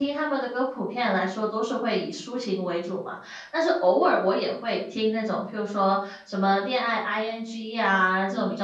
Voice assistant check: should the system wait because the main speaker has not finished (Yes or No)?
Yes